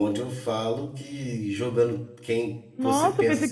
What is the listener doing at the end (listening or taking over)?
taking over